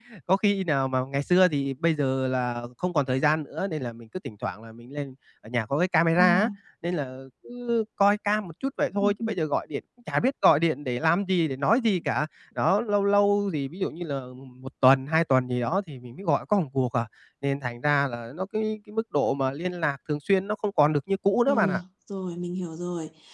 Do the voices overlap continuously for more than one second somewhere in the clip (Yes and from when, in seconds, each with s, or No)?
No